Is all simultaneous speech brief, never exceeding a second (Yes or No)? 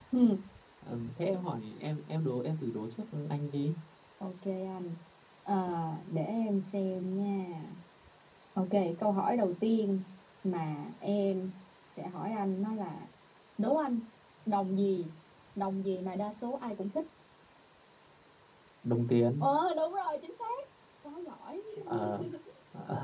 Yes